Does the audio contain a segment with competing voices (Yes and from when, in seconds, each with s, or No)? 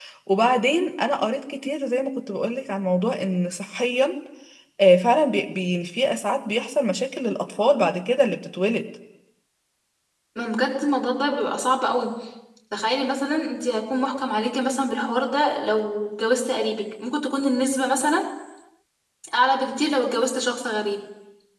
No